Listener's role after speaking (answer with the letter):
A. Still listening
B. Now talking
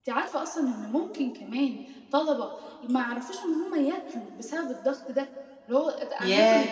B